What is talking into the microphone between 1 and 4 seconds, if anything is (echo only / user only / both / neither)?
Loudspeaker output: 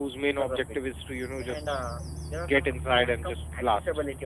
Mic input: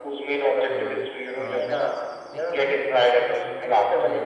both